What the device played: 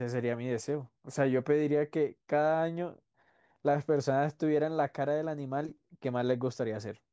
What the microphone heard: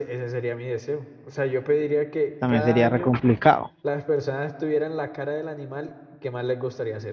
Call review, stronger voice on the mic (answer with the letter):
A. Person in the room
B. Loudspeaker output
A